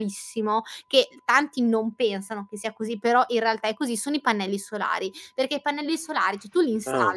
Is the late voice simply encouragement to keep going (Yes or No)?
Yes